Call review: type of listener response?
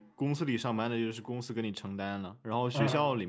listening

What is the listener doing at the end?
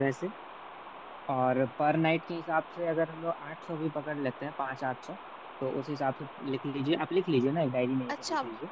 taking over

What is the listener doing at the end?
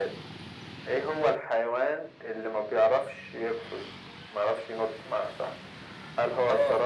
listening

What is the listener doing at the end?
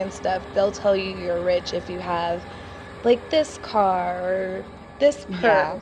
listening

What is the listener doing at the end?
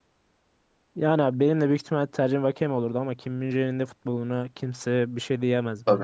taking over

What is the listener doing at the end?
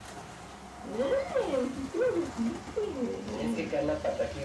taking over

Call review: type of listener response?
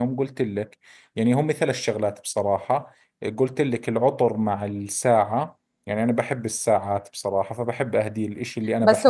taking over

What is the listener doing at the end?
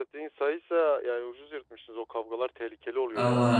taking over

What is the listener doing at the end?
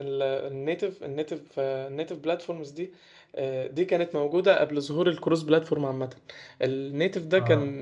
listening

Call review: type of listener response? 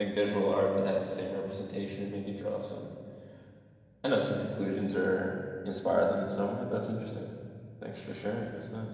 taking over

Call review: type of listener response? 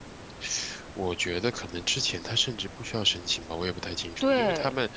listening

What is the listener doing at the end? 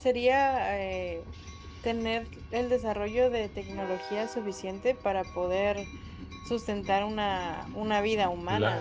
taking over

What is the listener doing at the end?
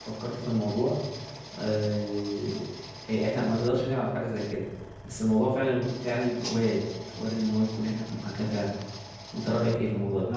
taking over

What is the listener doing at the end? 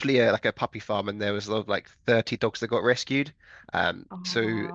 listening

